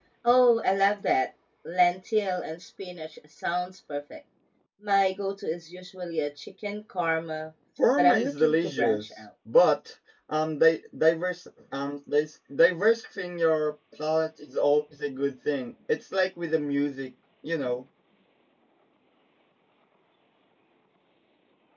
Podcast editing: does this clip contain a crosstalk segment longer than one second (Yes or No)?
Yes